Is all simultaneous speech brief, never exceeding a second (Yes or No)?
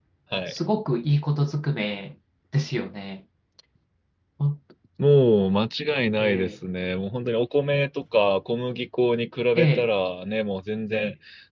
Yes